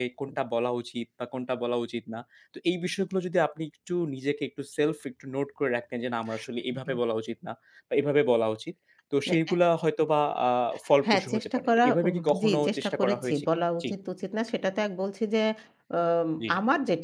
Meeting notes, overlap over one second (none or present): present